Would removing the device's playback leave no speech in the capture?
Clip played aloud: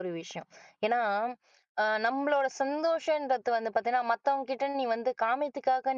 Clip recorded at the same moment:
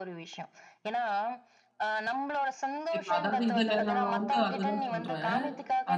No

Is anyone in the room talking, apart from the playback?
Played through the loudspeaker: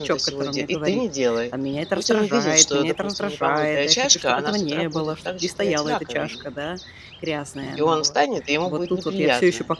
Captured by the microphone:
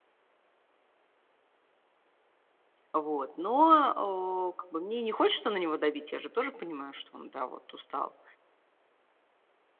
Yes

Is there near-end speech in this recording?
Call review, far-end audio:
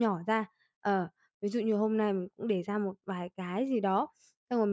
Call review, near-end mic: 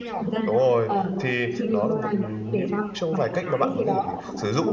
Yes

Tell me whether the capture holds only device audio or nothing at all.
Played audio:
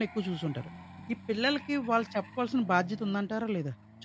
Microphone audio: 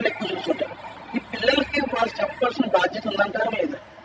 Yes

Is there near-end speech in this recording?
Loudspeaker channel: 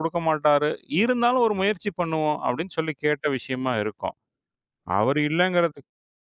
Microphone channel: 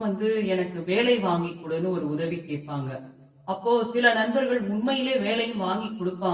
Yes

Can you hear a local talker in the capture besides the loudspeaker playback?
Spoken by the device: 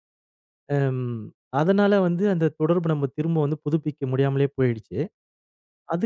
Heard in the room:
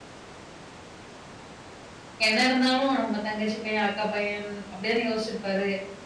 Yes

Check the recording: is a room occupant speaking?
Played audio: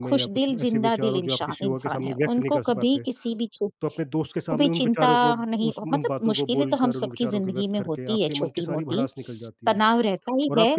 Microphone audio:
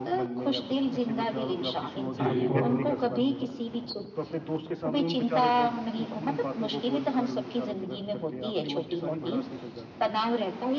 Yes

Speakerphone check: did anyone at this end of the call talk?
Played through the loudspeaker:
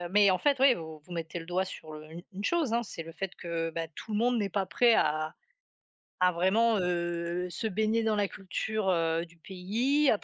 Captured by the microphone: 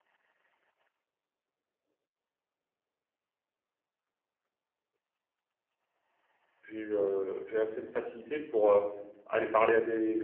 Yes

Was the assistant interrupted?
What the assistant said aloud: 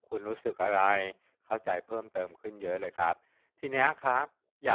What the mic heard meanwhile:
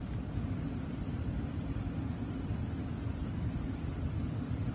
No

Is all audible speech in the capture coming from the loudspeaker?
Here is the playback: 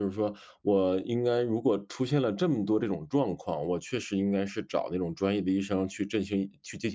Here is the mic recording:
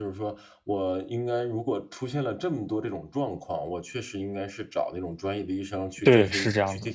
No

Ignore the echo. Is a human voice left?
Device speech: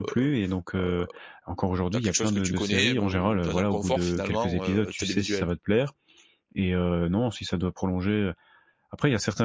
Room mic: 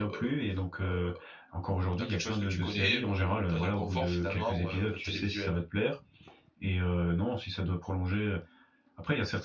No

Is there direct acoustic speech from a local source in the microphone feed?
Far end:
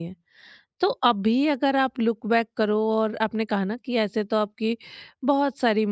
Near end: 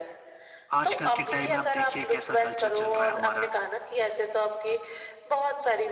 Yes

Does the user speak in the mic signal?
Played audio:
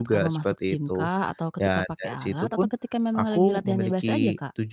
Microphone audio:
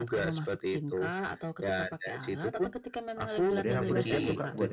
Yes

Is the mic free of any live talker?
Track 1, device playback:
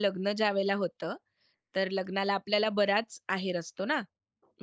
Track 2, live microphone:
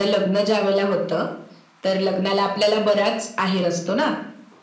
Yes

